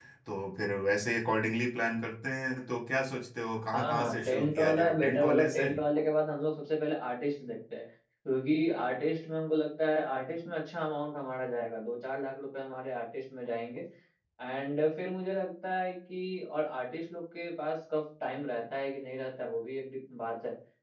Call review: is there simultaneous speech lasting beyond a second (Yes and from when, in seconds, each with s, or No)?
Yes, from 3.7 s